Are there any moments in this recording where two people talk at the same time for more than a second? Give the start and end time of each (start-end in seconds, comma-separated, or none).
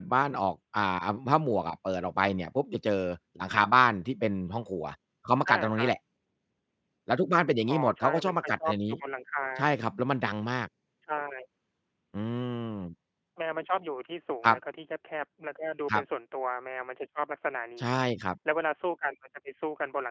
7.7-9.0